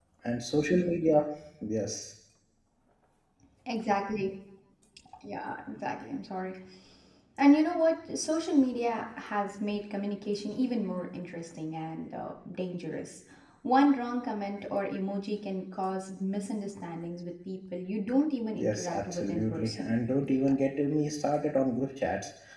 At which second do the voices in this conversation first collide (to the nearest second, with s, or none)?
19 s